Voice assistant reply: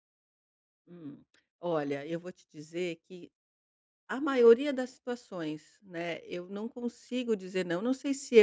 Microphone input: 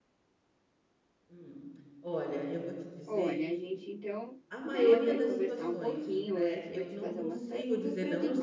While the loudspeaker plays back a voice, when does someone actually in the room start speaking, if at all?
3.1 s

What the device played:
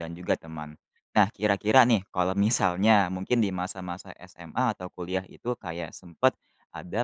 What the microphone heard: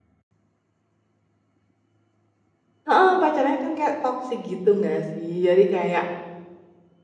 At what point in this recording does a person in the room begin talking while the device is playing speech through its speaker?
2.9 s

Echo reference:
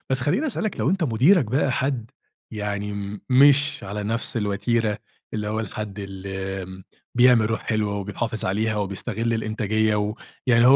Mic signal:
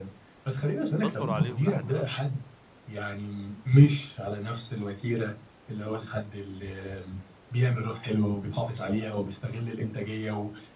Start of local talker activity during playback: 1.0 s

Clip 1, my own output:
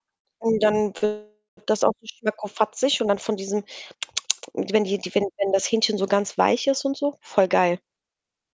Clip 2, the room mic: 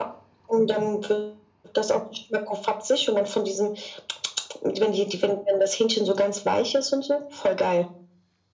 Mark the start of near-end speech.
none

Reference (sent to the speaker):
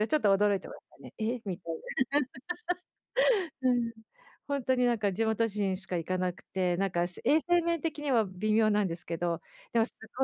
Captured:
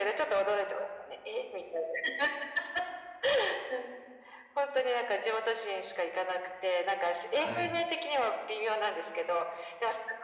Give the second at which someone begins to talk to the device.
7.3 s

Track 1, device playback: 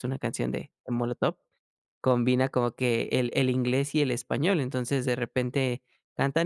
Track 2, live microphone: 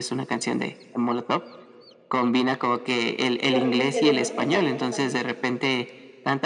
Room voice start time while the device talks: 3.5 s

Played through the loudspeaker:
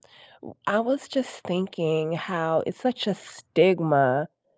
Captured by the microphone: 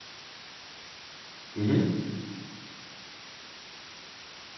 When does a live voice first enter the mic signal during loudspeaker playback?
1.6 s

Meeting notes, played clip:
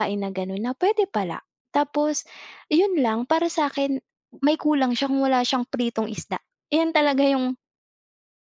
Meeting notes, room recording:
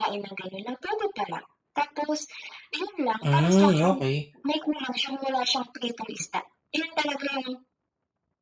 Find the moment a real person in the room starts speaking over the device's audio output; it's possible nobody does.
3.2 s

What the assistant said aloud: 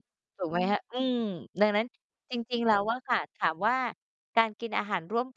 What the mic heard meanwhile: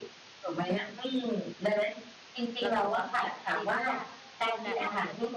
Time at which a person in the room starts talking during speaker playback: 2.6 s

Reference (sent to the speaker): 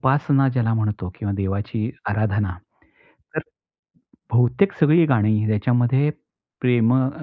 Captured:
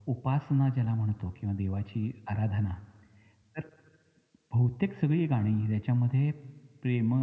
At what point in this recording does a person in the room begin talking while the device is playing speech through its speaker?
none

